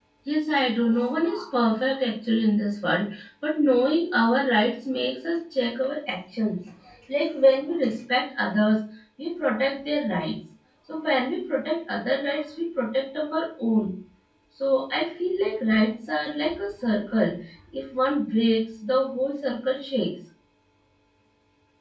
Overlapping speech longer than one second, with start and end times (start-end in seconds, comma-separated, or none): none